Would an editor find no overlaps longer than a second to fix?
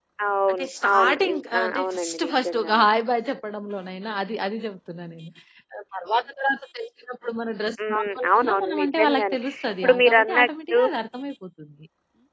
No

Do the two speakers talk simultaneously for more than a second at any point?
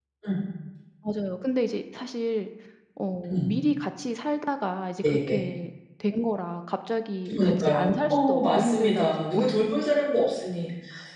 Yes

